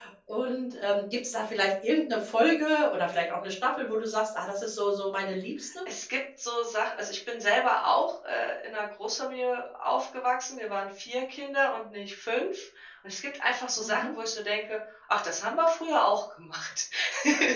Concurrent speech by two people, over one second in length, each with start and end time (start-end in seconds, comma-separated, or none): none